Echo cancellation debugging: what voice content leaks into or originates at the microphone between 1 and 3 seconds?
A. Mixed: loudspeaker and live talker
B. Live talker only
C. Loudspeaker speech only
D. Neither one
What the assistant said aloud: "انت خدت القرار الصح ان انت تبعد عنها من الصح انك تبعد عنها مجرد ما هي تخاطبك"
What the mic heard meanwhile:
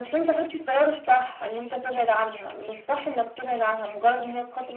C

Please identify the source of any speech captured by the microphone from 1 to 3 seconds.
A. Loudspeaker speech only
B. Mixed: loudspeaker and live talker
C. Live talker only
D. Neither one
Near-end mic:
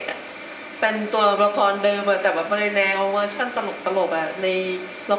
A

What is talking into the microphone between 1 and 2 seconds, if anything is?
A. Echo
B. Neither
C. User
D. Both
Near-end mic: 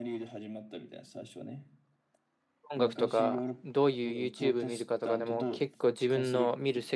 A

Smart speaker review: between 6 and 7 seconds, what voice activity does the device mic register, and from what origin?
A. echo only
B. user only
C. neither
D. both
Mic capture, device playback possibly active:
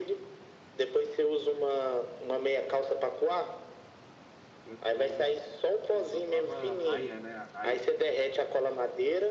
D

